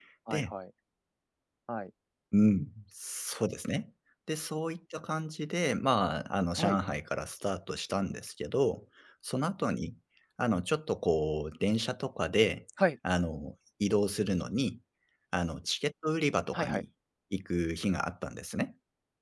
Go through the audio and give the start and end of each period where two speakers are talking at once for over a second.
none

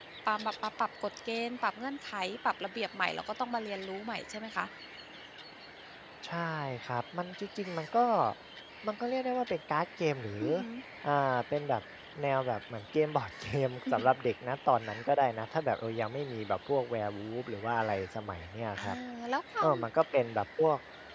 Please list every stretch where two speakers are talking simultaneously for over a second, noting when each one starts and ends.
none

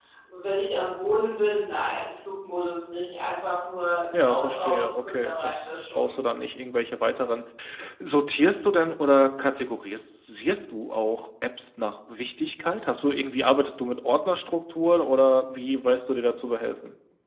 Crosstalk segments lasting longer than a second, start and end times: 4.1-6.1

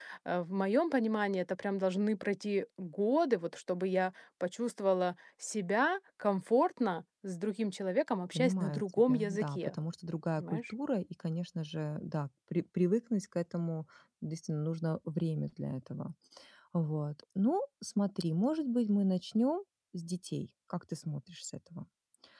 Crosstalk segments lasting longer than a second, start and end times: 8.3-9.8

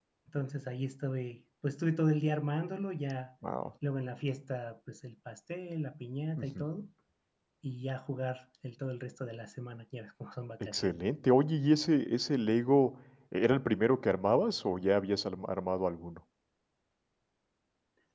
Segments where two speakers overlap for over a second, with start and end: none

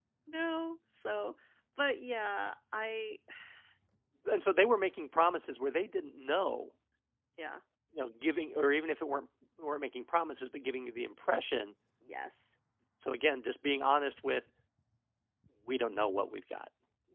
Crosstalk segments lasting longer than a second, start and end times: none

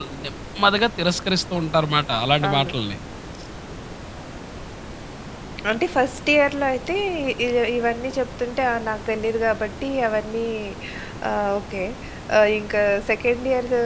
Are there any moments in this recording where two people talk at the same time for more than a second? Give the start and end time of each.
none

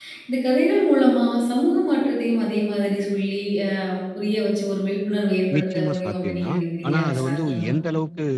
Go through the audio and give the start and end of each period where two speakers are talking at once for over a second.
5.6-7.7

